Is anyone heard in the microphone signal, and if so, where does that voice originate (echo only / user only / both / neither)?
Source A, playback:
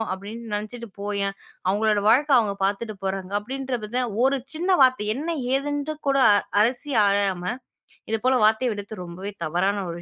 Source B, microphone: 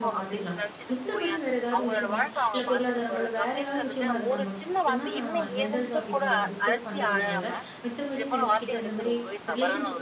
both